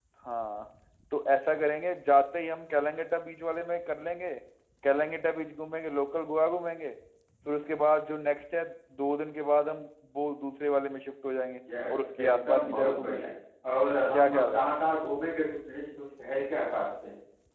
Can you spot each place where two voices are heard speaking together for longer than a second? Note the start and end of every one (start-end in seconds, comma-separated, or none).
11.9-13.3